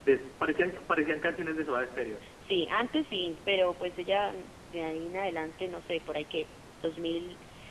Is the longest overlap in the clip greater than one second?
No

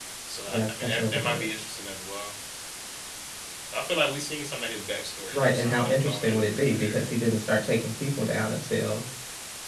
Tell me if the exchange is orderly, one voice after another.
No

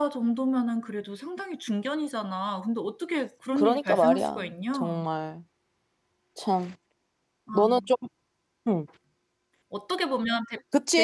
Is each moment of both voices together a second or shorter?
No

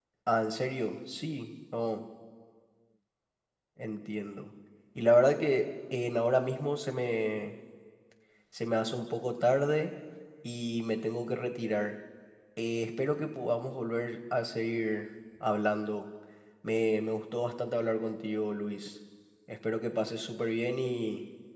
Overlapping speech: No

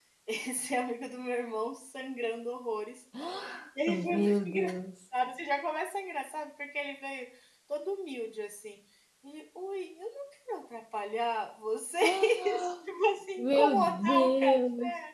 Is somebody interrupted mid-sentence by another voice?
Yes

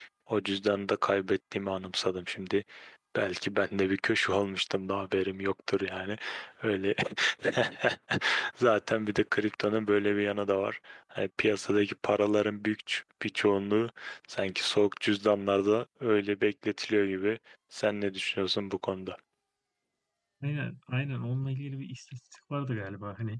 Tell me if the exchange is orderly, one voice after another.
Yes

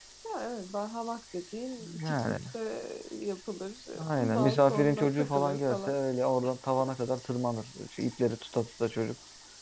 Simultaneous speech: Yes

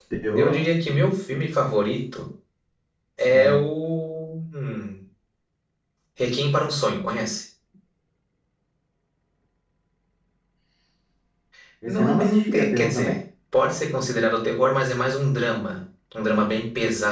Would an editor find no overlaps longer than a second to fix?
No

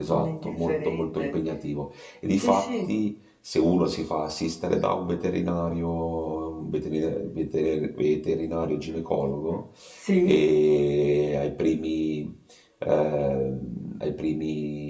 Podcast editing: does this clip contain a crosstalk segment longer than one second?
Yes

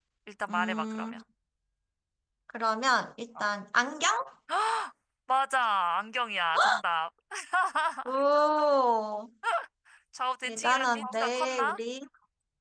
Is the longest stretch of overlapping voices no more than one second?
No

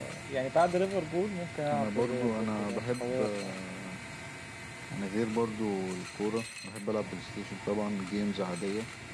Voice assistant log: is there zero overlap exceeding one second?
No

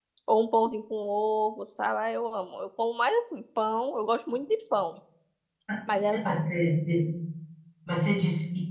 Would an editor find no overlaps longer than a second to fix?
Yes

